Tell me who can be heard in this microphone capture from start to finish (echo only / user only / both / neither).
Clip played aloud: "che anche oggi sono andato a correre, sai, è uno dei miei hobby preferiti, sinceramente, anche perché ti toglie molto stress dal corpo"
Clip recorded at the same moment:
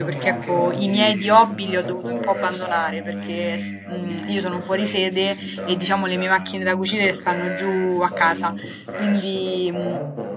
both